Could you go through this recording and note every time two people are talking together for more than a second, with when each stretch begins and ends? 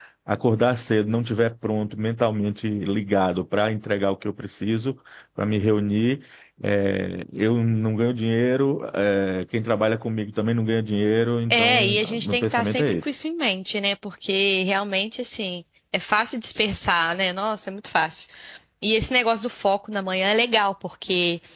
11.5-13.1

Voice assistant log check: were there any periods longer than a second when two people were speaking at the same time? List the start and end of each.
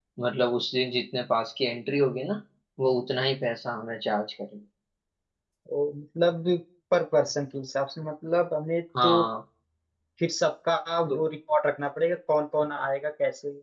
none

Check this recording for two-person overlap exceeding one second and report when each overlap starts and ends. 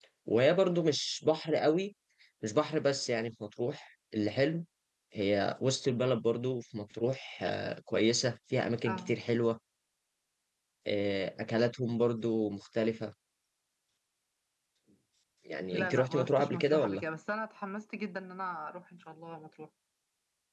15.7-17.0

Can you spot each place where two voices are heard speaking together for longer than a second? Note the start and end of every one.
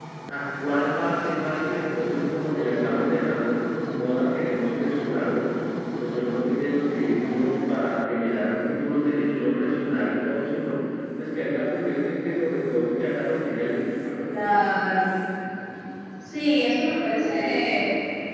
none

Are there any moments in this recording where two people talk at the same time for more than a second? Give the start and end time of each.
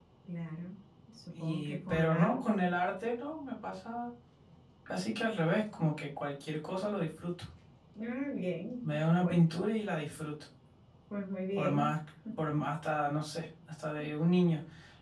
1.4-2.6

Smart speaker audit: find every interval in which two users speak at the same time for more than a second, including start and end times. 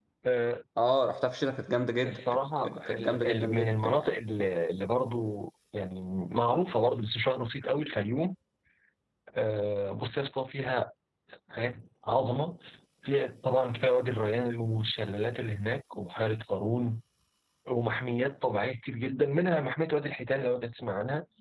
2.6-4.1

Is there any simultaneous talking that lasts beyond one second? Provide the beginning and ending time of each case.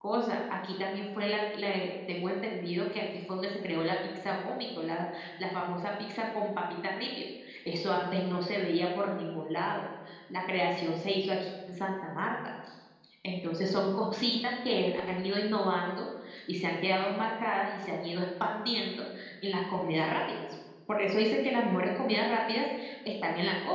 none

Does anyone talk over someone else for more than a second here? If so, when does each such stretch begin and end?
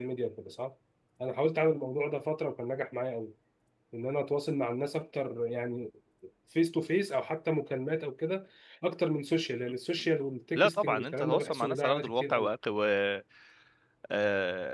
10.6-12.5

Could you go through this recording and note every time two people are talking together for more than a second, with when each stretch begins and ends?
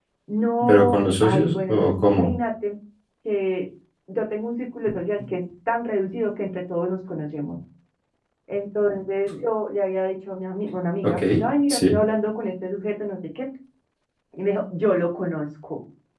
0.6-2.3

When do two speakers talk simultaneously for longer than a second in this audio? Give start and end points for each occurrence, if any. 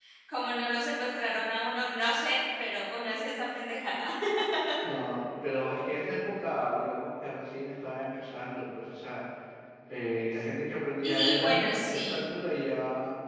11.0-12.3

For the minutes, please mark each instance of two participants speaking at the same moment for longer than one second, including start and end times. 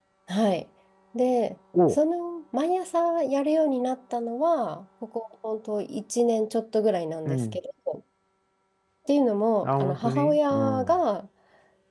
9.6-11.0

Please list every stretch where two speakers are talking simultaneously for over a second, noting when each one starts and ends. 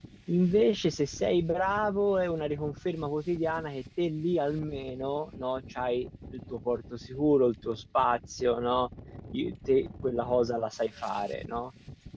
none

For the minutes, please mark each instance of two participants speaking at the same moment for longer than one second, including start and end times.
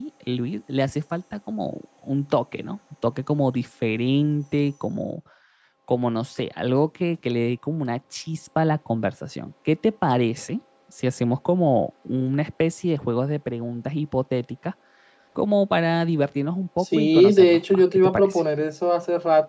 16.8-18.4

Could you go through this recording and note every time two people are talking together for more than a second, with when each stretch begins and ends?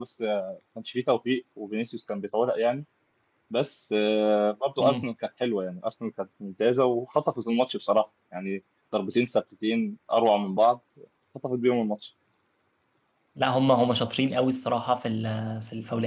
none

